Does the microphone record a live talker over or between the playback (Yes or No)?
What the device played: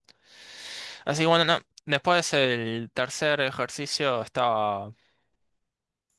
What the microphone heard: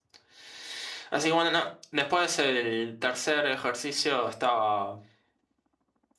No